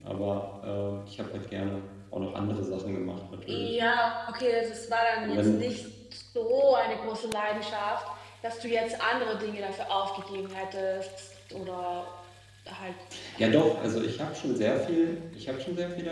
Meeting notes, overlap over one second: none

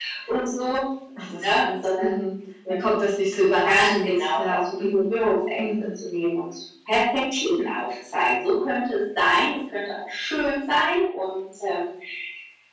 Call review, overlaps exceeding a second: present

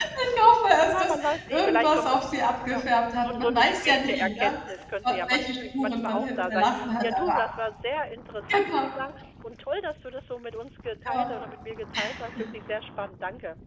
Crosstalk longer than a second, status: present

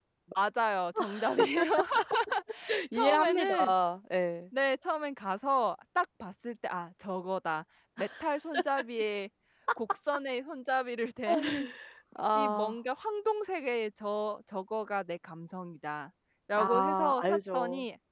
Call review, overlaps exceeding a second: present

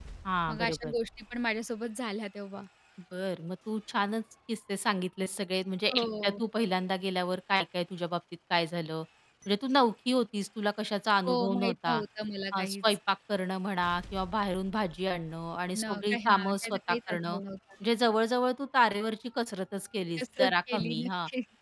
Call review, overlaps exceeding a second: present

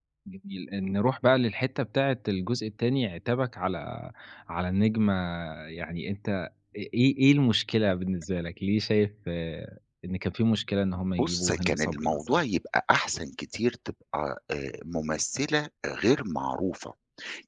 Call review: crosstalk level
present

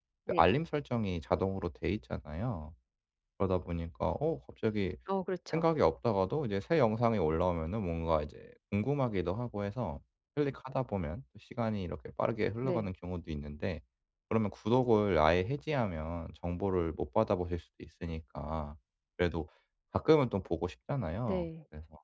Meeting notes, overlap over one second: none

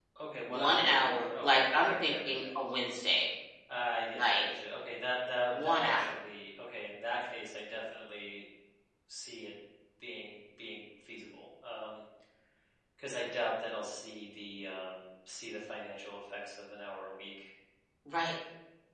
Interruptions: present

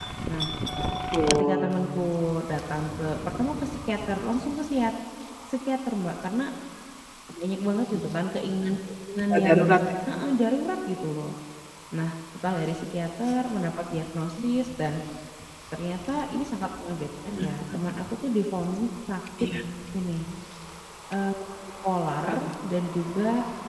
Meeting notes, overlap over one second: none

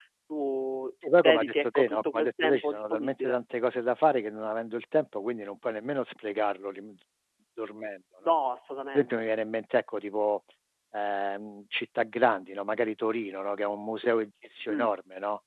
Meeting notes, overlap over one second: present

